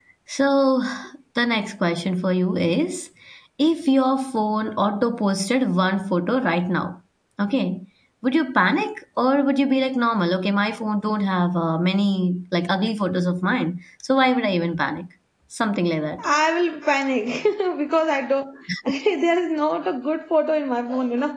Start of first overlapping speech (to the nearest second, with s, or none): none